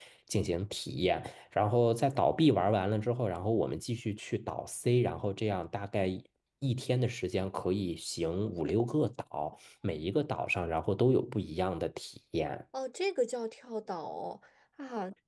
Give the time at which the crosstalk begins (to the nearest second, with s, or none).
none